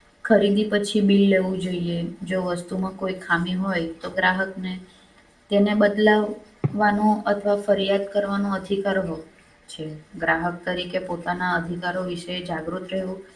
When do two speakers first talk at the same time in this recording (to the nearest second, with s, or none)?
none